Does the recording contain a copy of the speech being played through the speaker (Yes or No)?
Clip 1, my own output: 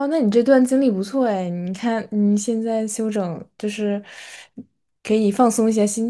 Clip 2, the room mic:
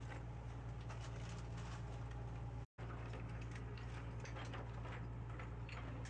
No